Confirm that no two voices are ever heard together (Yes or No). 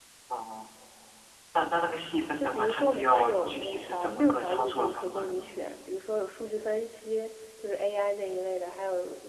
No